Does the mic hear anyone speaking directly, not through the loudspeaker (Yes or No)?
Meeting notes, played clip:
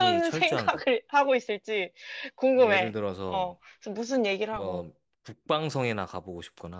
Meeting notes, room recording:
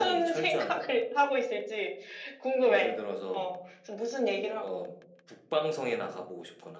No